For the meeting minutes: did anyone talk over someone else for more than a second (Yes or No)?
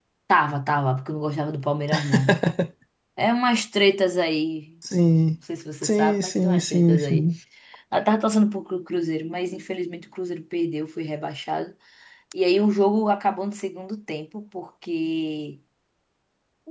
Yes